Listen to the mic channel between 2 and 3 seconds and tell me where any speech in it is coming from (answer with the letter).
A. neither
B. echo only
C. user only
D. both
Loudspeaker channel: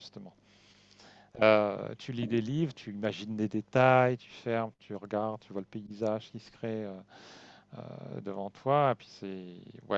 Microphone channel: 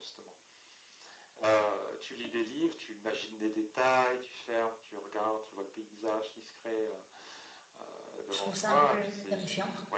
B